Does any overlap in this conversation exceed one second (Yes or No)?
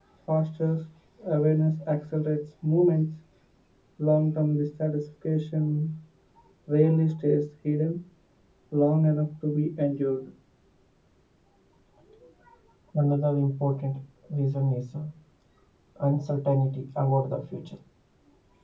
No